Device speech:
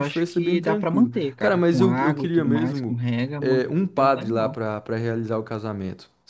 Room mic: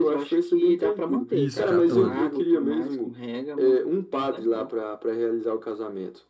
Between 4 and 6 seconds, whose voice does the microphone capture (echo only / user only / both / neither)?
echo only